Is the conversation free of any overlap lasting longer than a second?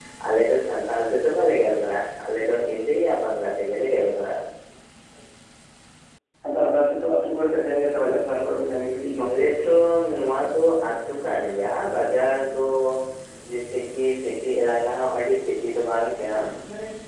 Yes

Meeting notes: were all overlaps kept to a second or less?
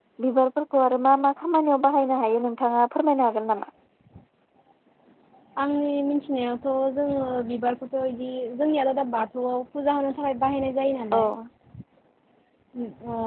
Yes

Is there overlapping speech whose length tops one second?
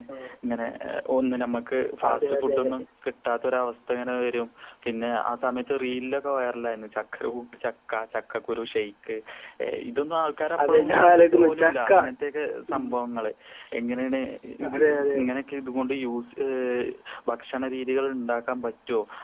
Yes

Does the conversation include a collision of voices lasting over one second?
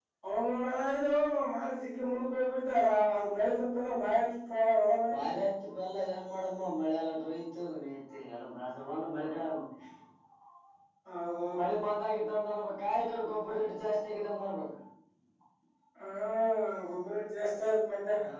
No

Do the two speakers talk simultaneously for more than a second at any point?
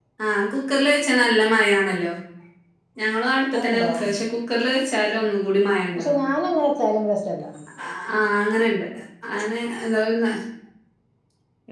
No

